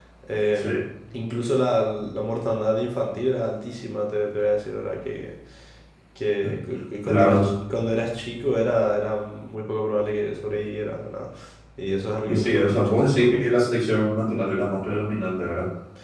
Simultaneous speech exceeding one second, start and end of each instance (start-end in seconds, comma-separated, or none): 12.3-13.5